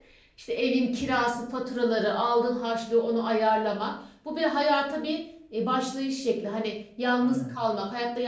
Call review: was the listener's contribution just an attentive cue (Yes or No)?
Yes